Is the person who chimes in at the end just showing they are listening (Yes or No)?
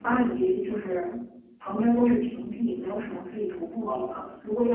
Yes